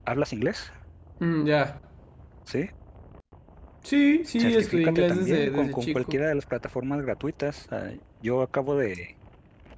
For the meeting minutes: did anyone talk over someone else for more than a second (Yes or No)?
Yes